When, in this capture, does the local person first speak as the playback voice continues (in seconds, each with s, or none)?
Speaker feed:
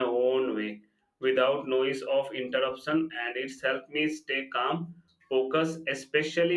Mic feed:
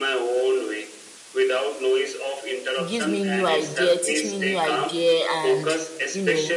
2.9 s